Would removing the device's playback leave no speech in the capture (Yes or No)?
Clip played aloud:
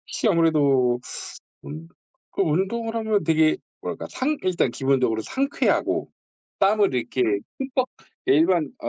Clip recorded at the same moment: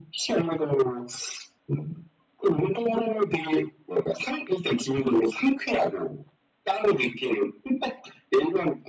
Yes